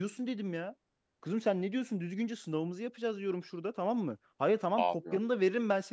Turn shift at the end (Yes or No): No